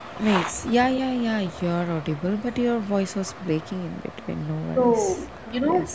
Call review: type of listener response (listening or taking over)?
taking over